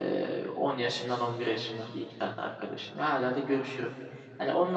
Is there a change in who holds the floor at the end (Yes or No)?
No